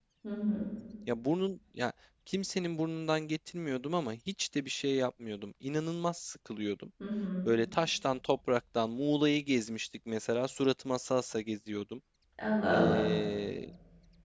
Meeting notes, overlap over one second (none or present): none